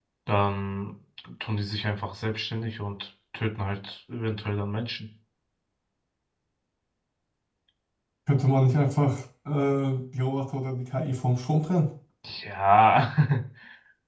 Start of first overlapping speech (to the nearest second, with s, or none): none